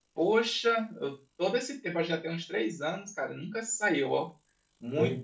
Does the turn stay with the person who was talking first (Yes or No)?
Yes